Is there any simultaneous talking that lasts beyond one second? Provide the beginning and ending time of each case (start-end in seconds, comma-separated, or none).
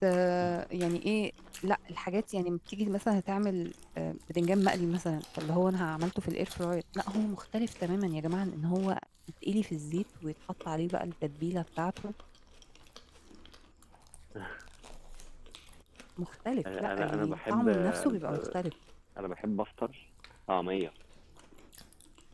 16.8-18.6